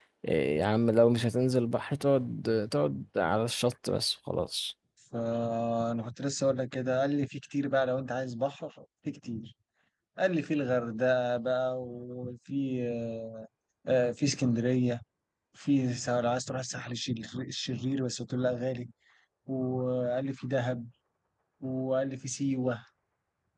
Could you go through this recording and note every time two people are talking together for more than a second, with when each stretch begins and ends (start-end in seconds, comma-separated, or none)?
none